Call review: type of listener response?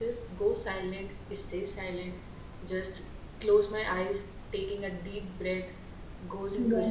listening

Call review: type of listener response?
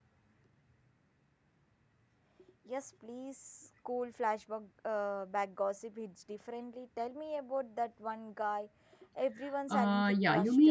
taking over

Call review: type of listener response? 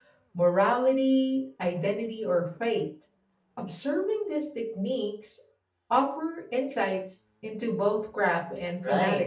taking over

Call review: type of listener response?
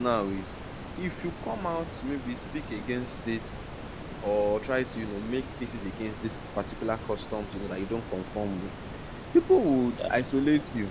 listening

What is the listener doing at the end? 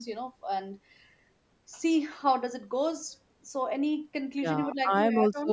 taking over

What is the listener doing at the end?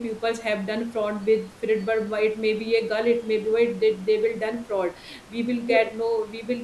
listening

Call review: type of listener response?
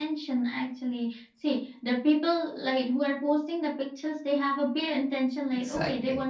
listening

